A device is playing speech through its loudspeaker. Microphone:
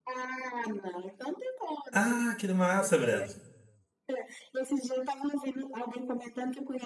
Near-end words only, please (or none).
Ah, que massa, Breno.